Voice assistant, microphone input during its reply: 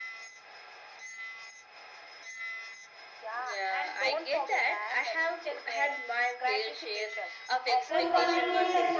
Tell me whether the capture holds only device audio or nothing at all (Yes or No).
No